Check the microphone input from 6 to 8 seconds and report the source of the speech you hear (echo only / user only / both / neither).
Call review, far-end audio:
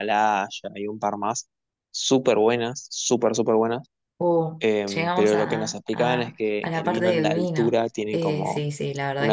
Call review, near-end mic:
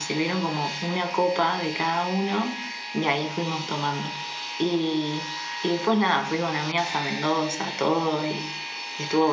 user only